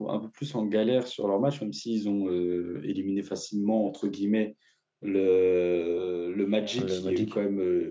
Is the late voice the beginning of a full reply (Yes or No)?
No